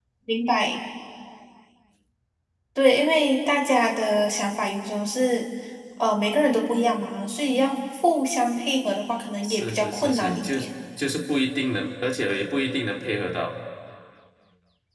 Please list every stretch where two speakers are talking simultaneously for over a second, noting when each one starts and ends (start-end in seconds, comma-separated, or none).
9.4-10.7